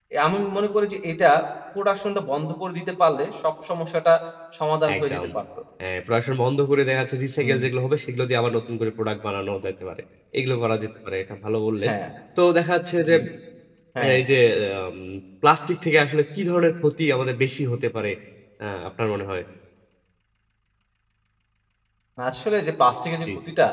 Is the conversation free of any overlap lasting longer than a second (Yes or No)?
Yes